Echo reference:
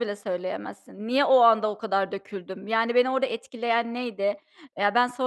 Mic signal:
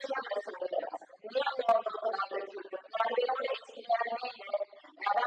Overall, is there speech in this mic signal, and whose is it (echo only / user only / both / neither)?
echo only